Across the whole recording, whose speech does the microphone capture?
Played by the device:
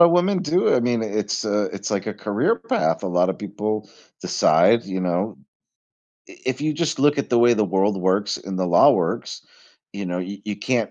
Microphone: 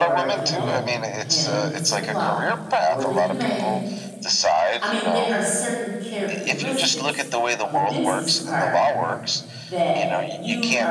both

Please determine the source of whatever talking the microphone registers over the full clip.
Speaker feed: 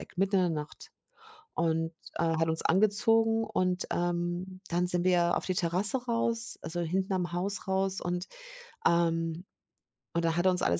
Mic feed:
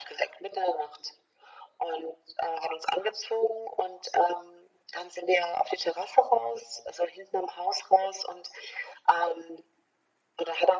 echo only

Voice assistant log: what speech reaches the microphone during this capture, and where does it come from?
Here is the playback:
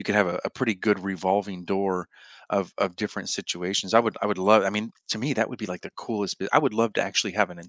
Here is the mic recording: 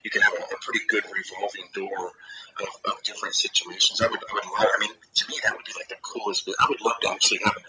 echo only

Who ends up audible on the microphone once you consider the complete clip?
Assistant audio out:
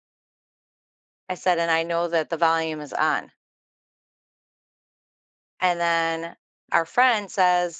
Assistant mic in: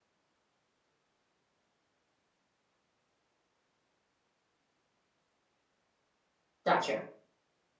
user only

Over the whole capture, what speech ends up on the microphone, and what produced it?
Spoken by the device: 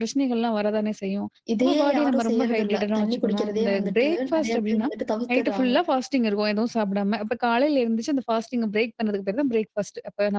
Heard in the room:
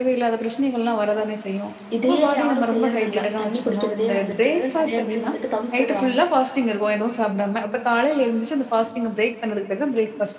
echo only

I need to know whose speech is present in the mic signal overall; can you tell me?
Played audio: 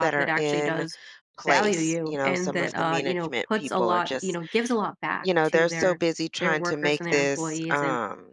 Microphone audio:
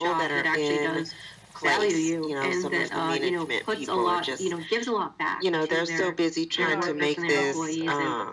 both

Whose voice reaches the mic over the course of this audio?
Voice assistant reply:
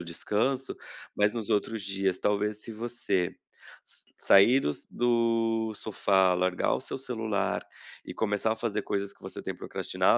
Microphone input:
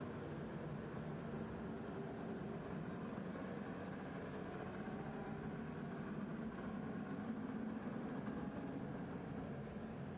neither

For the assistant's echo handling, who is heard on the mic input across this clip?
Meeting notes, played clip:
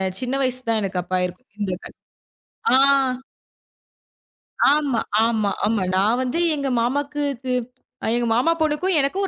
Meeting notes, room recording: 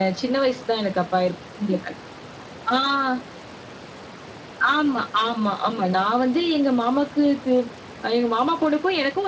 echo only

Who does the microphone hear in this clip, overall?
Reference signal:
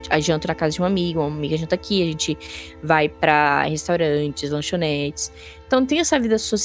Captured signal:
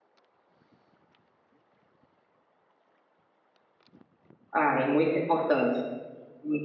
user only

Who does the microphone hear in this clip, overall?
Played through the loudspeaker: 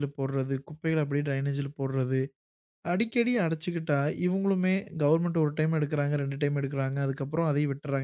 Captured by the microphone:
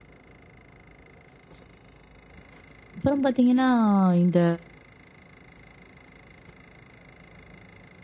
user only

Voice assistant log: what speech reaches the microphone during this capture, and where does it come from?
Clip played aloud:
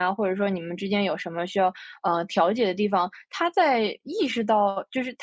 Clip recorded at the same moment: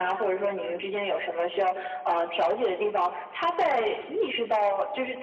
echo only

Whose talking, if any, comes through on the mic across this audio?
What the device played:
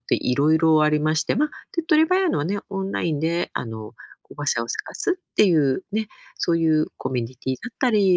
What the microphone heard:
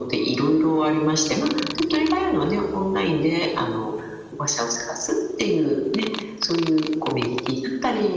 echo only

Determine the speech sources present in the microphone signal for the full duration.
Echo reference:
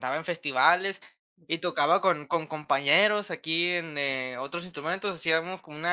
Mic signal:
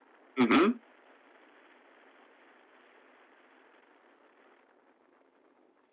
user only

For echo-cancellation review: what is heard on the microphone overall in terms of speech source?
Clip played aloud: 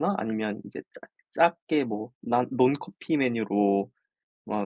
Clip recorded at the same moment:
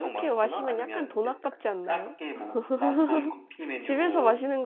both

